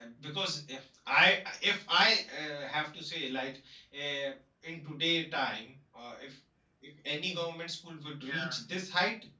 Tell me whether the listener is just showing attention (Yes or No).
Yes